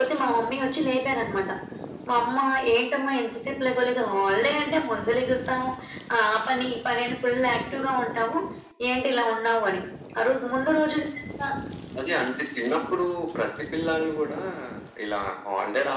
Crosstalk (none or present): none